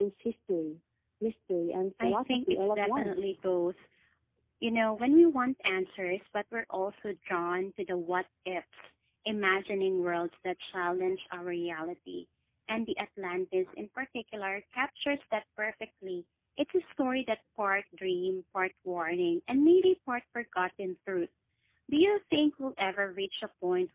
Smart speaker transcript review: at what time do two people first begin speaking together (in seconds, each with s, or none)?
2.0 s